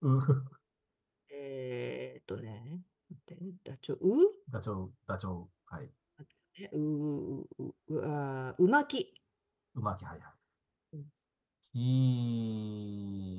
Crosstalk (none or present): none